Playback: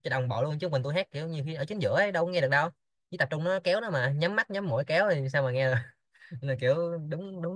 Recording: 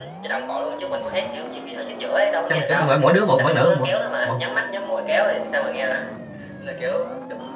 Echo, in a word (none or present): present